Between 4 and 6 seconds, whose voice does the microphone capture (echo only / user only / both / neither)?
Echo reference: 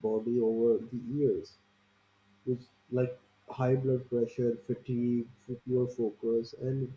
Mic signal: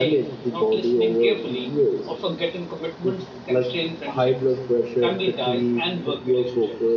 both